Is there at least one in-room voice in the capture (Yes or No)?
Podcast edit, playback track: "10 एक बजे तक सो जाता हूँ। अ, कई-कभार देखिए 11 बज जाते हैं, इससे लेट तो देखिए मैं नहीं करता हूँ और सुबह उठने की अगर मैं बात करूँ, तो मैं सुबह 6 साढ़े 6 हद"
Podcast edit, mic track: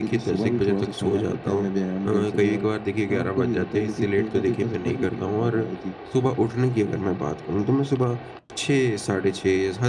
Yes